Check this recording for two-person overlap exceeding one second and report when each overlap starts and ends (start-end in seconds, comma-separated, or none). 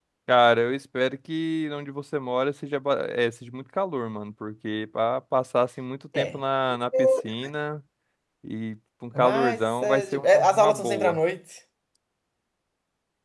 9.2-11.2